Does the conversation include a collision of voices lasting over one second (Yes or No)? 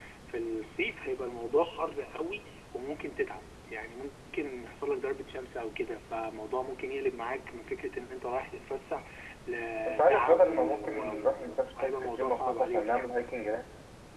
Yes